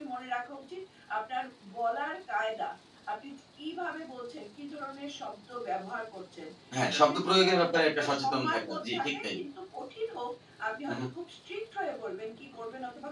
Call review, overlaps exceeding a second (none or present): present